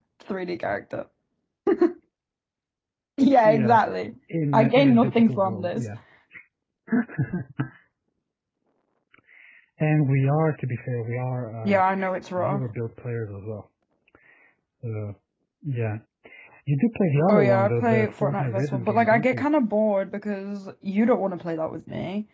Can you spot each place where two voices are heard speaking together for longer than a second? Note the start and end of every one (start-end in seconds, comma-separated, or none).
4.5-5.8, 17.3-19.4